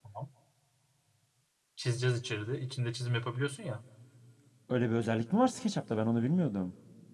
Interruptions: none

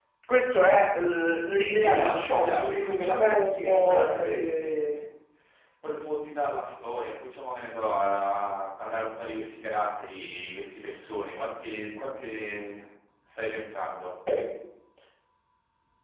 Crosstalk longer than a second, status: present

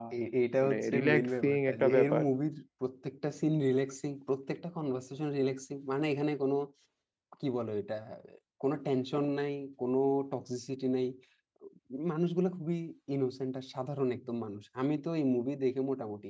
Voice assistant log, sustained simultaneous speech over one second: present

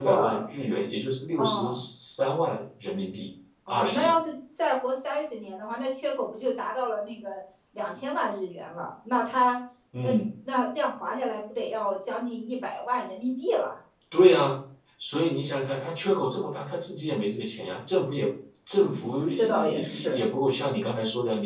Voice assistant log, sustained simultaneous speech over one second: present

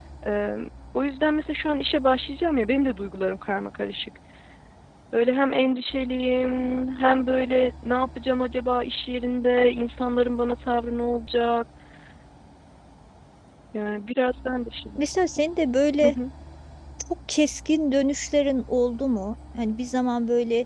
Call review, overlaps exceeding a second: none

